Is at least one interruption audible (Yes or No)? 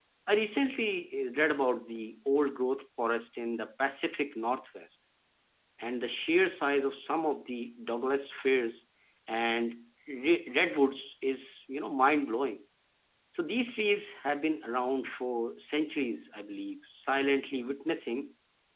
No